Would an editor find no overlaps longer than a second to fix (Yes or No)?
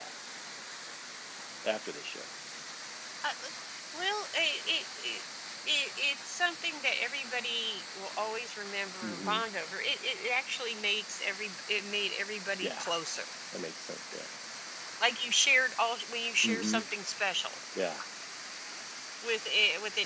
Yes